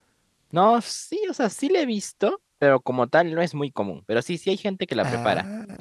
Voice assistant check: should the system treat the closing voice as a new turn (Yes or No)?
No